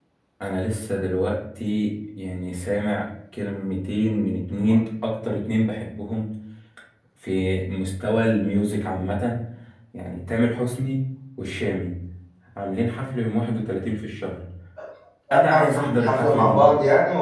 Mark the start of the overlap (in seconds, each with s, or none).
15.3 s